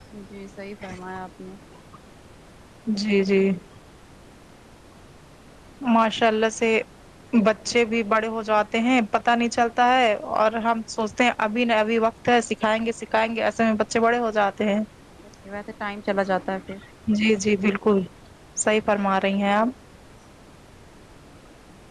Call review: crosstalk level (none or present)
none